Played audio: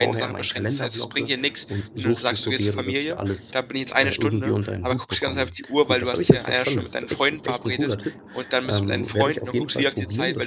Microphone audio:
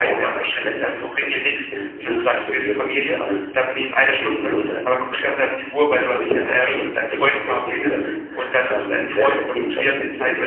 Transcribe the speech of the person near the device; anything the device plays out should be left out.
Mhm.

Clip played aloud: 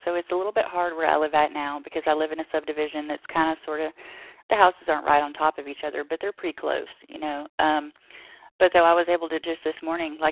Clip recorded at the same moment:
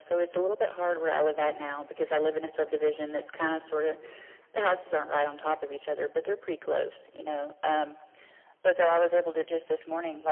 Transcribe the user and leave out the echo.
none

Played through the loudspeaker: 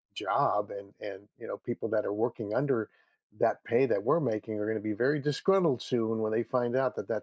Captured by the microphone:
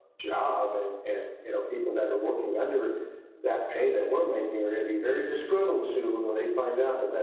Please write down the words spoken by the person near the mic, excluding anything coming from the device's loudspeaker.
none

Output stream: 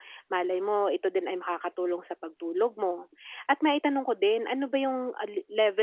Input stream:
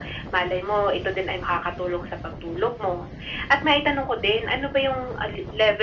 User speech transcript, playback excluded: none

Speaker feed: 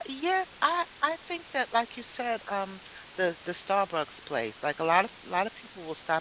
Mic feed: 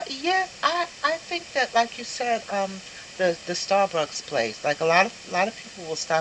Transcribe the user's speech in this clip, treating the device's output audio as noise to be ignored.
none

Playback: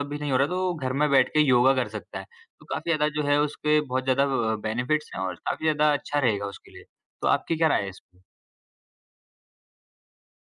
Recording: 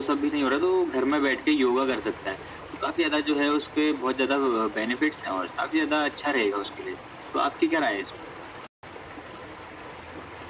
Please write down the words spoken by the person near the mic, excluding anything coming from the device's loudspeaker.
none

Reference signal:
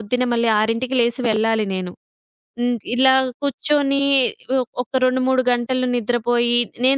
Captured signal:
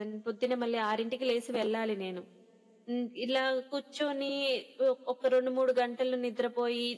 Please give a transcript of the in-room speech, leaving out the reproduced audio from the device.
none

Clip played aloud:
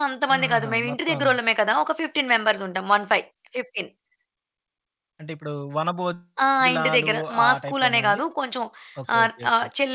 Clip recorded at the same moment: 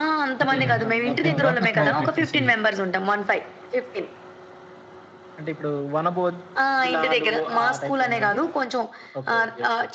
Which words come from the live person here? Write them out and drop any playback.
అదేలెండి. అయిపోయిన తర్వాత అక్కడ పెట్టేసి

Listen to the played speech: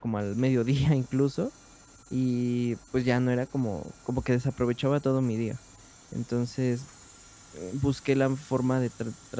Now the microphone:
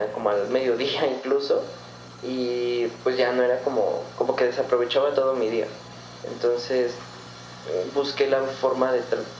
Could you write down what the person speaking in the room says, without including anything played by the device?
none

